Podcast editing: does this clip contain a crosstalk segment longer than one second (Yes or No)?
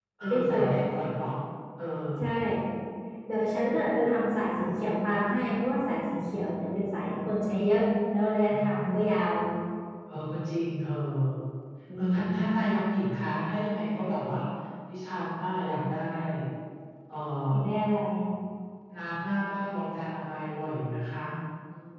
No